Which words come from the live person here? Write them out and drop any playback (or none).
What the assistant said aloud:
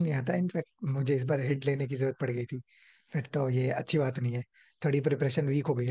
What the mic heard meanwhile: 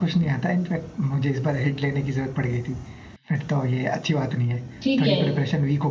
ठीक है